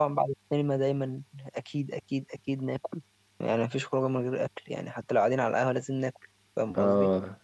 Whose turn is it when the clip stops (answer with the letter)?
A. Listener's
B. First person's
A